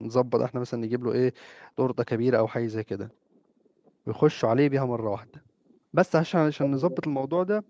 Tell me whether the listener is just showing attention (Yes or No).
Yes